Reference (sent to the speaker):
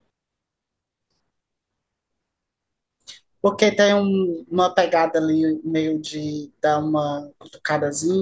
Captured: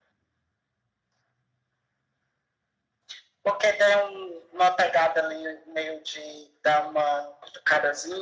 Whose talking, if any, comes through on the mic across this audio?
echo only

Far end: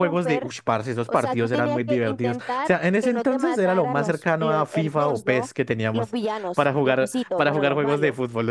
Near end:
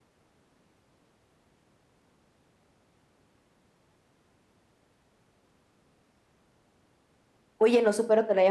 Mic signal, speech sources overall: user only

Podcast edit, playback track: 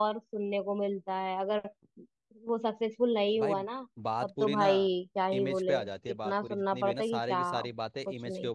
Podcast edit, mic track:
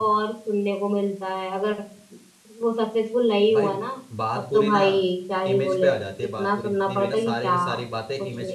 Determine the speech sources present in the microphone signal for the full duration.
echo only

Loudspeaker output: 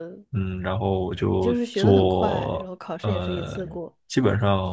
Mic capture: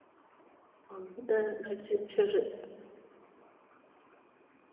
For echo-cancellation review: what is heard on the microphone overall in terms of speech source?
user only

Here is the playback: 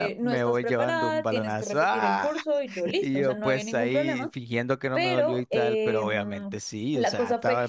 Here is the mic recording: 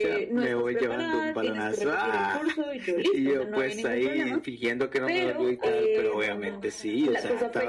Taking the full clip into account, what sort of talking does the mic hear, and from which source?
both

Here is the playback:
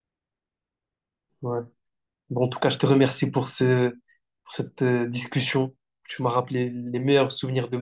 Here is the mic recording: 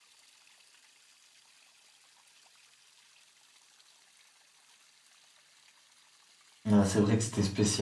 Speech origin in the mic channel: user only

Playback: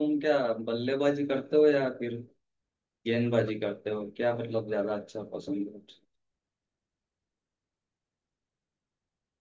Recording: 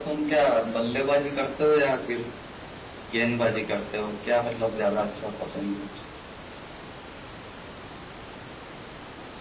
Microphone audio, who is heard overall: echo only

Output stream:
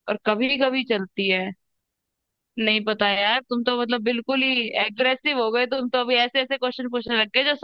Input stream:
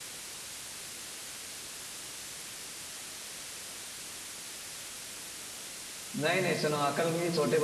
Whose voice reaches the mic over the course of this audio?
user only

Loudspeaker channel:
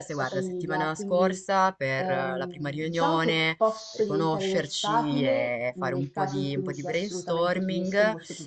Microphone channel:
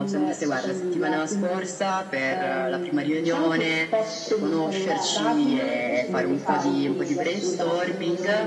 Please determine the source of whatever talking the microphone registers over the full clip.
both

